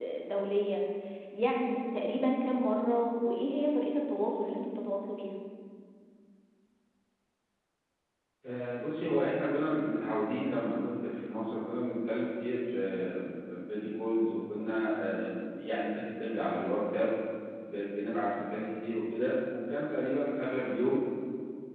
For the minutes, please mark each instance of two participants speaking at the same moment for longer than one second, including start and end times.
none

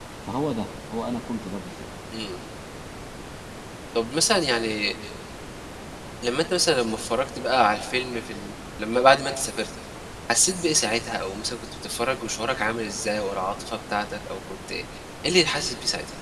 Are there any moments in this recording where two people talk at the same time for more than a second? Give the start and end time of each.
none

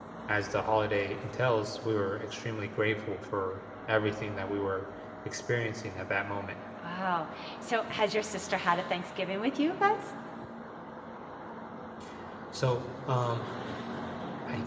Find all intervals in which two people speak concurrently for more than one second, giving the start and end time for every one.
none

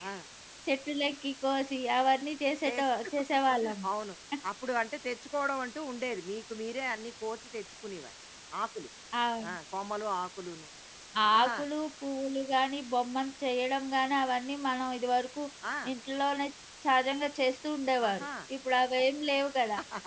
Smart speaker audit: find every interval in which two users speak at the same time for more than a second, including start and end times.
none

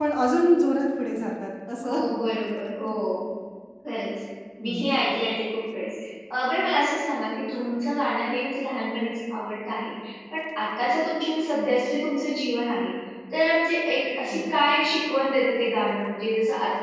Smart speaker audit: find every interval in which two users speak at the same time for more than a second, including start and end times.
none

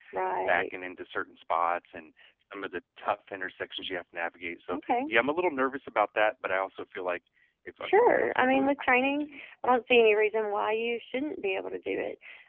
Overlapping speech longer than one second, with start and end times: 7.8-9.2

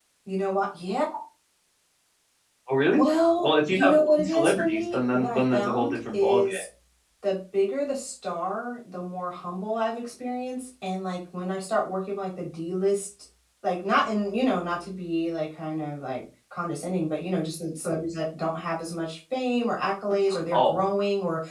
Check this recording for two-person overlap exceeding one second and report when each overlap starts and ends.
3.4-6.6

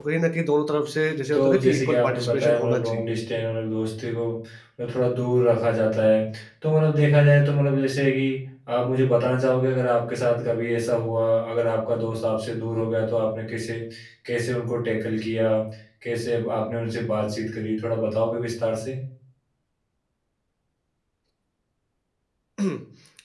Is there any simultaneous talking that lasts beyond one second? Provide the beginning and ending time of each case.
1.3-3.2

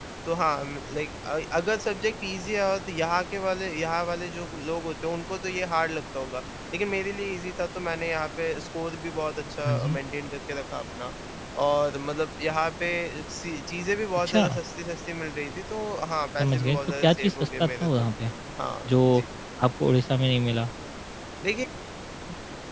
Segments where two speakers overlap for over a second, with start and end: 16.4-18.0

